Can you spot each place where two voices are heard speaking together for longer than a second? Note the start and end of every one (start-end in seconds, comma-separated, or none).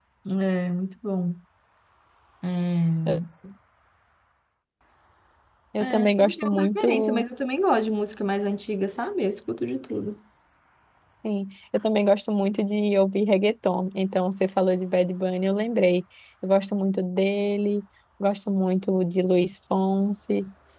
5.8-7.3